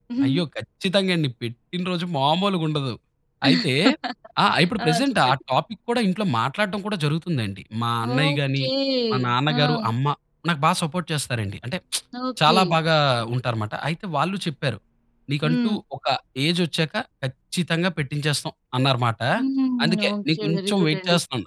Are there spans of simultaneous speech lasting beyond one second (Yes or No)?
Yes